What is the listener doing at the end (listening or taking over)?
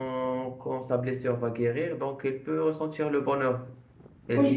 listening